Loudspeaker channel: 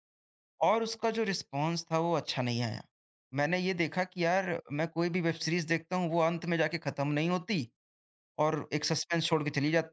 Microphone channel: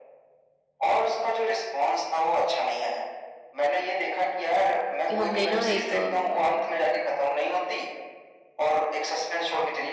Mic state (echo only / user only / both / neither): both